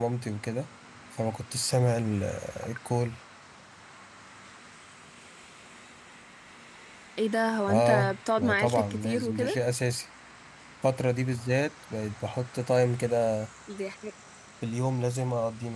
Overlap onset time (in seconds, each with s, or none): 7.7 s